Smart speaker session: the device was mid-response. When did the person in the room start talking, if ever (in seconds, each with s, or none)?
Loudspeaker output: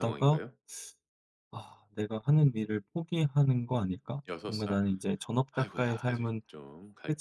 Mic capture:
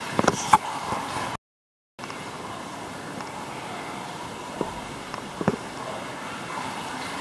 none